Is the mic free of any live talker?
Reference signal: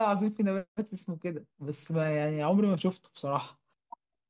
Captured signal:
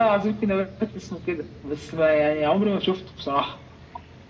Yes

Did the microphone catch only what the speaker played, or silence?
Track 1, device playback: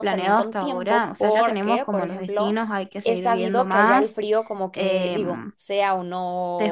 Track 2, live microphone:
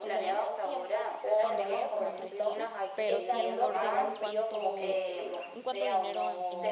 No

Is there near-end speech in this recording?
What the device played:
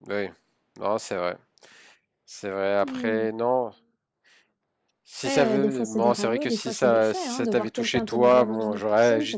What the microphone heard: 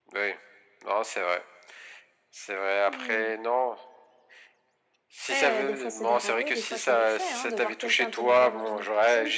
No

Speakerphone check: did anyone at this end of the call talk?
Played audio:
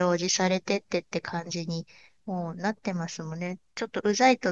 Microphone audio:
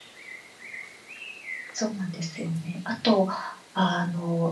Yes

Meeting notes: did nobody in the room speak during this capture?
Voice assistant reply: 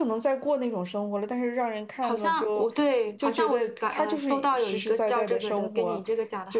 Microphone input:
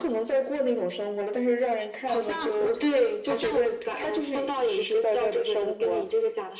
Yes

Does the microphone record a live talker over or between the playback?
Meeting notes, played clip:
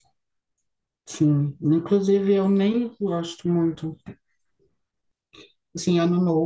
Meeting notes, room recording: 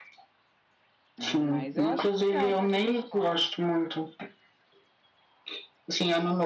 Yes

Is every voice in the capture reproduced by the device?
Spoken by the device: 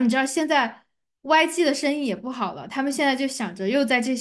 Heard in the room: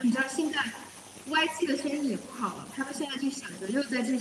Yes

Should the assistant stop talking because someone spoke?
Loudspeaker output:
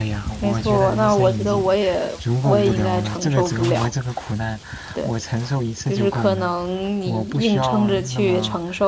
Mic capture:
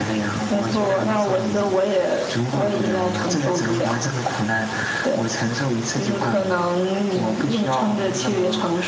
No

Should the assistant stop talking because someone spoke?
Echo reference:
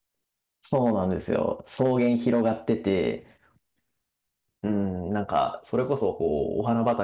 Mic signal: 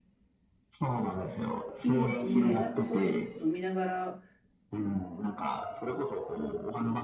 Yes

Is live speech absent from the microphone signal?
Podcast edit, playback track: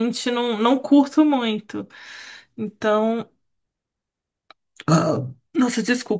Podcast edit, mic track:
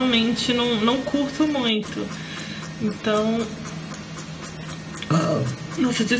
Yes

